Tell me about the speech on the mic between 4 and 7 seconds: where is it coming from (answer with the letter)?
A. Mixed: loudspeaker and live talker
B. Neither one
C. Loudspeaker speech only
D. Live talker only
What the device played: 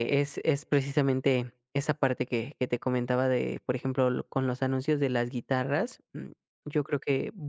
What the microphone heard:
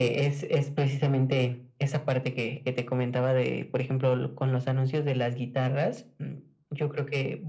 C